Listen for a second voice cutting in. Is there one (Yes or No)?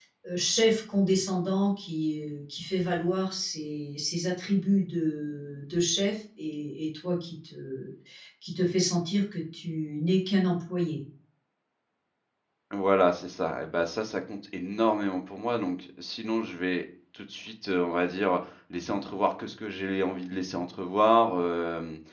No